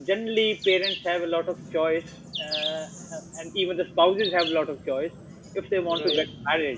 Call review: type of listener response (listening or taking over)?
listening